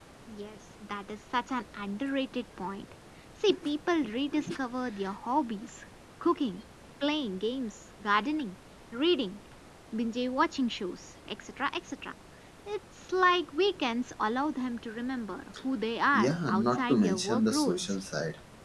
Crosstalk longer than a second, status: present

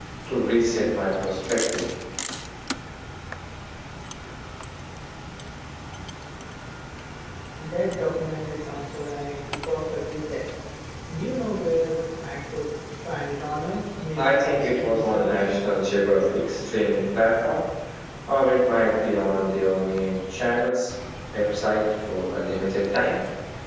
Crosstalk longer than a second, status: present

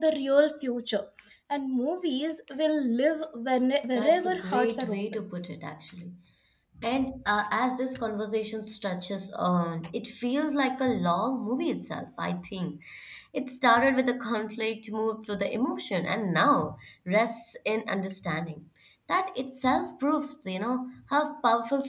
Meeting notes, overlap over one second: present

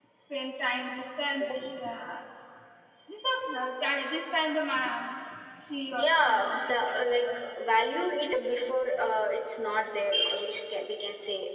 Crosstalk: present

